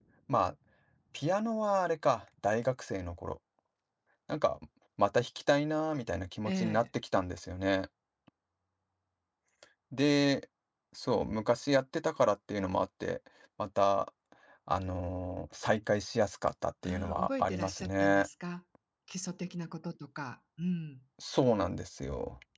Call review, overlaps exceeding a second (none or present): present